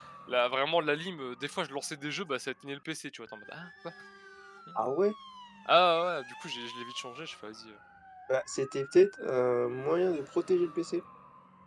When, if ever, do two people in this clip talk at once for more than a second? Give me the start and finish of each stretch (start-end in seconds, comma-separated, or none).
none